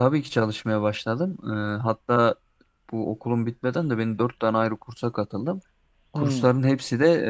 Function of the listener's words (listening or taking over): listening